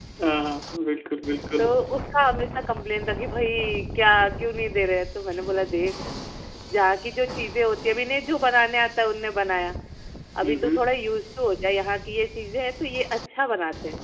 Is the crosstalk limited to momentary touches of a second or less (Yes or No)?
Yes